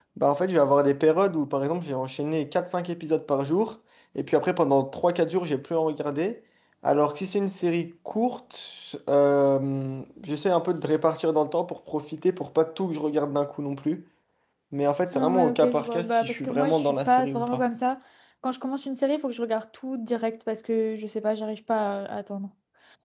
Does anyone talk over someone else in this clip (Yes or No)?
Yes